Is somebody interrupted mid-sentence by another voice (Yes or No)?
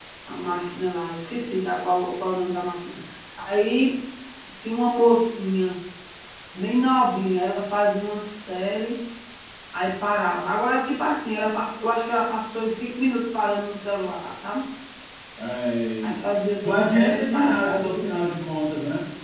Yes